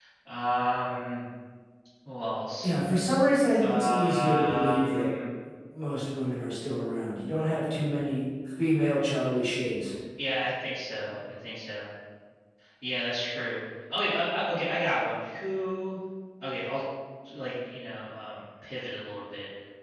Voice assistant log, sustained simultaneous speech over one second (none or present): present